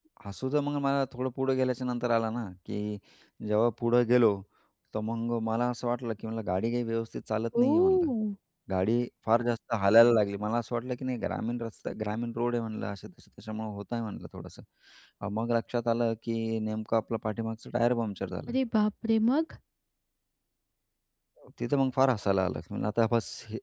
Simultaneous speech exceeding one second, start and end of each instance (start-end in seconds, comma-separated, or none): none